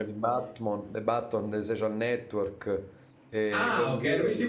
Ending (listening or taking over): taking over